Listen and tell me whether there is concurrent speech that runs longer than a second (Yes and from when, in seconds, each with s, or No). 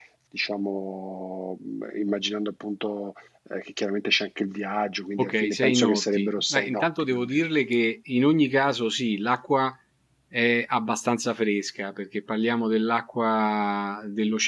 Yes, from 5.2 s